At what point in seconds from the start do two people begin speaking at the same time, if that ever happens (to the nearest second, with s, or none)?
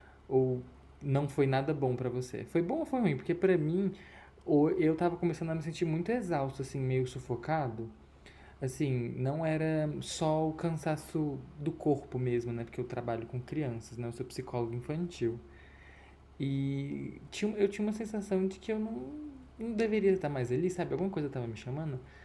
none